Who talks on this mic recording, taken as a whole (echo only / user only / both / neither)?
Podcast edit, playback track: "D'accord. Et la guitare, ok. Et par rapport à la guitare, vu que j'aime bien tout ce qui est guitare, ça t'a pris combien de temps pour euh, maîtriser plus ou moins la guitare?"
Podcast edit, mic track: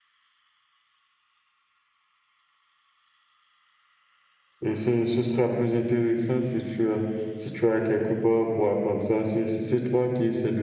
user only